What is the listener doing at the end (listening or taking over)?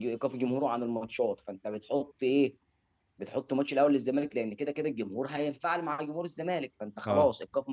listening